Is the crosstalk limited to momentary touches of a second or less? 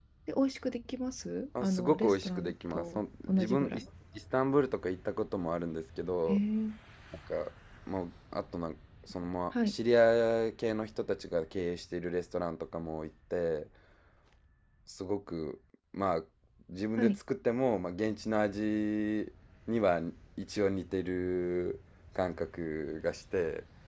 No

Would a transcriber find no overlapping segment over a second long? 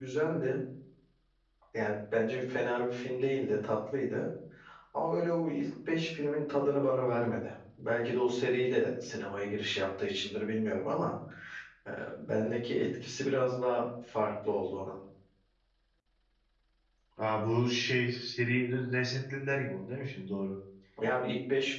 Yes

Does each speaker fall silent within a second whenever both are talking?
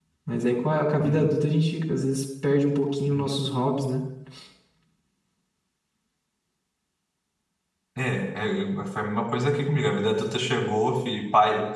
Yes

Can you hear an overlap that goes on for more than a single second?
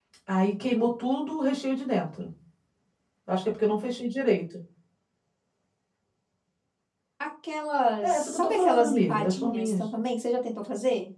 Yes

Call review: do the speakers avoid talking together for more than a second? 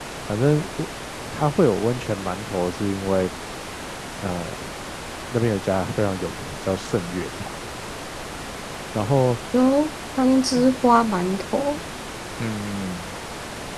Yes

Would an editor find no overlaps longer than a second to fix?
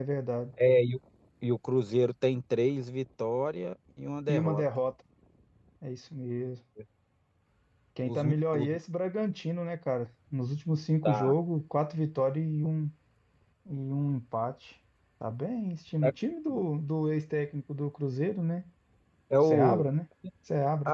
Yes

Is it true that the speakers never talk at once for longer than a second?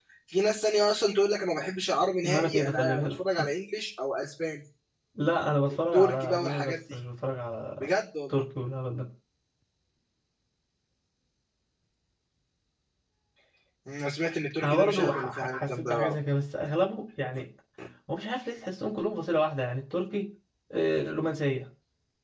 No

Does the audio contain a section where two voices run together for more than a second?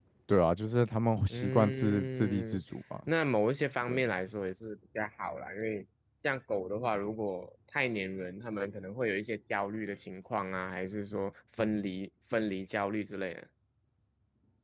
Yes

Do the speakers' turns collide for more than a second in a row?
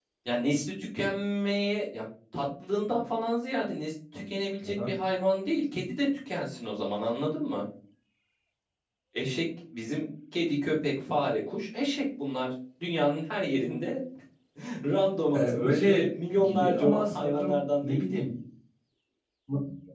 Yes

